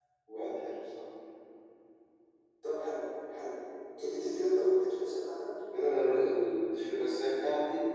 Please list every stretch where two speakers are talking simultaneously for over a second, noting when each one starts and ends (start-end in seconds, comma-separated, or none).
none